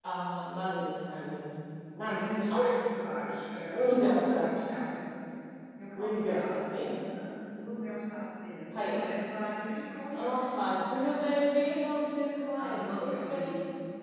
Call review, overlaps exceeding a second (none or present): present